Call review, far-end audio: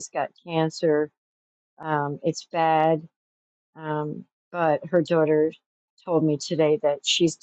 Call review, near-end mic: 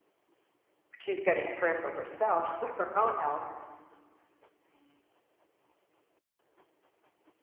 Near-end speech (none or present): present